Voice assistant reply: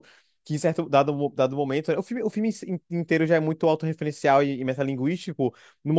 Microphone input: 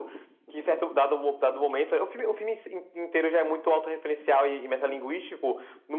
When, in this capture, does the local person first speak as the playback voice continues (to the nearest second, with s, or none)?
none